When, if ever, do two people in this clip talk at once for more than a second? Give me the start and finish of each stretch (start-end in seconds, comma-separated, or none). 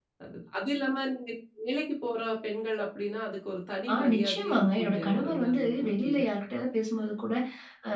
3.9-6.2